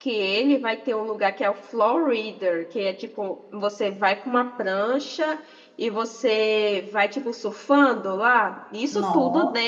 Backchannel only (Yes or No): Yes